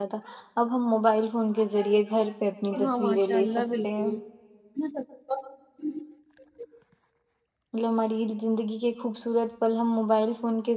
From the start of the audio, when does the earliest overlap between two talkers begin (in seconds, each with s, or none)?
2.7 s